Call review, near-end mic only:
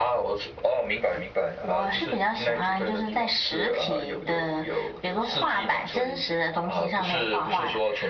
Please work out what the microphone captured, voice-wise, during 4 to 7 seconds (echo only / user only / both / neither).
echo only